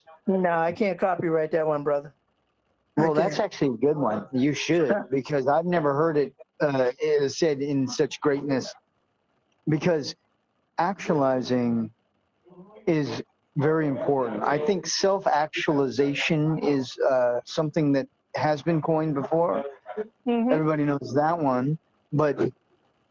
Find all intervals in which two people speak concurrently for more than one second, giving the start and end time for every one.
none

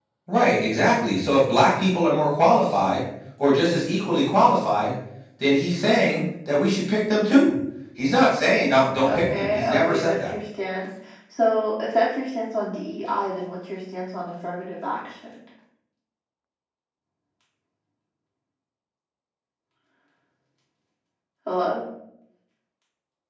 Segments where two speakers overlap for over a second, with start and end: 9.0-10.3

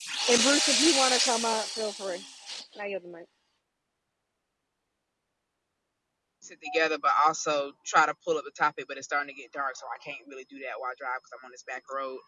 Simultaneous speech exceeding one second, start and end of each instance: none

